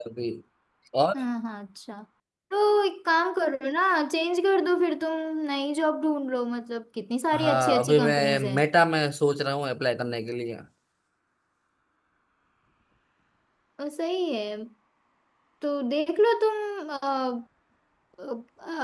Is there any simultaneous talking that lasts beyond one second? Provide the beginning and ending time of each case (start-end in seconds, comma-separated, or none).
7.3-8.6